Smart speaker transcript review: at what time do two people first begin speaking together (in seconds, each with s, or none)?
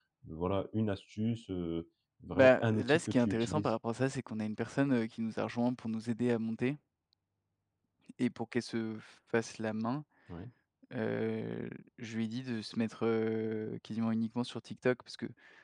2.3 s